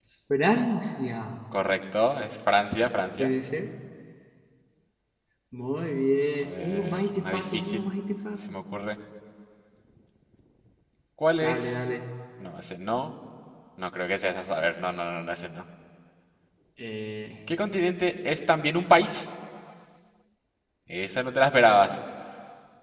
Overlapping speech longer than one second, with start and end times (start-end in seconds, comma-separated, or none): 6.4-7.9